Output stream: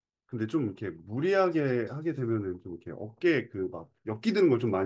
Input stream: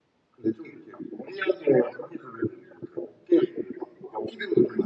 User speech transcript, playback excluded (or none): none